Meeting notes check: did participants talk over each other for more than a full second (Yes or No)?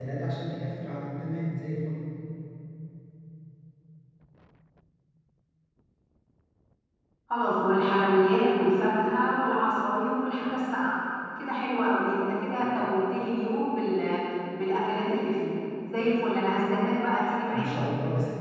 No